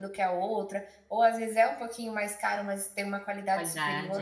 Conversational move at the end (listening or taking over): listening